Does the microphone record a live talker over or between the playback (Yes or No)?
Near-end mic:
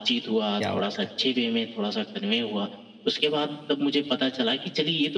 Yes